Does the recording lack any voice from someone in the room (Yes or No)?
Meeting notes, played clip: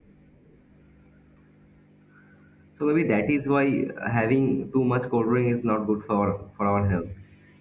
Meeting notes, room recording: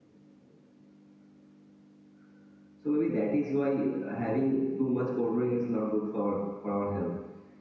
Yes